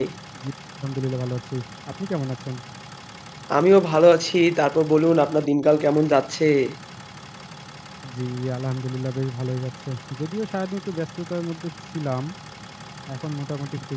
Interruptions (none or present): none